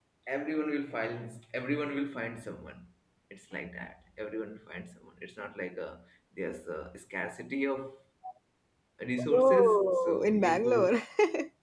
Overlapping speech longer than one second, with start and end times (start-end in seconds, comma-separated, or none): 9.3-10.9